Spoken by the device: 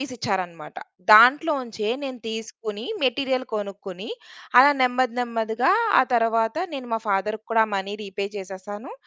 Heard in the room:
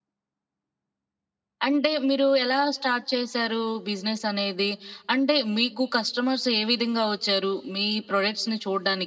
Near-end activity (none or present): present